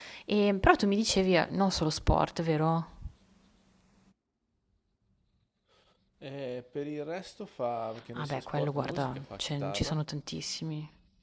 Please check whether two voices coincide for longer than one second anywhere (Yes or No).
Yes